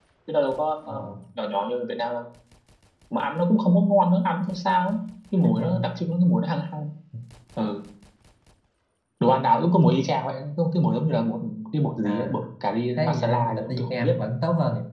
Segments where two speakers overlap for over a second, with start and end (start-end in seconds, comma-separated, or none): 13.0-14.2